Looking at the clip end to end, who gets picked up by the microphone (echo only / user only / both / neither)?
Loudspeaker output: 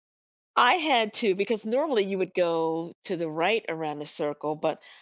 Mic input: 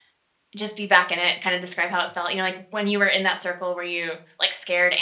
user only